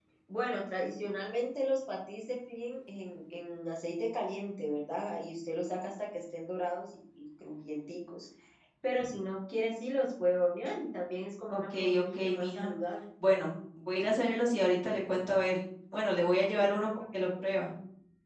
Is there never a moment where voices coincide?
No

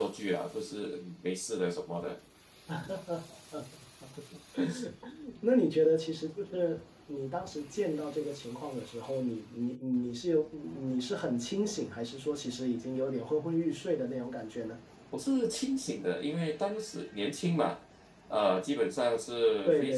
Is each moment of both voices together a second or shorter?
Yes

